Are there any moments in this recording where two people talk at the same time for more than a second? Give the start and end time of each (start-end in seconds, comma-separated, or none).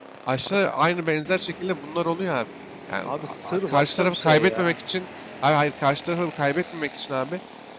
3.0-4.8